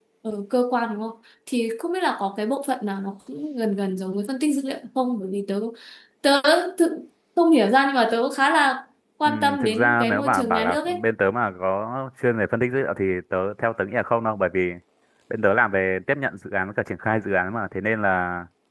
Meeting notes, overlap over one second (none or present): present